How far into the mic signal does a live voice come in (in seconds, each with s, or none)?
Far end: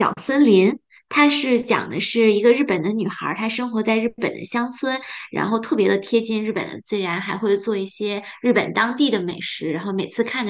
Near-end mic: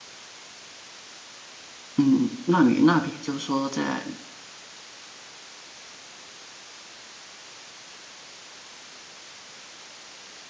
2.0 s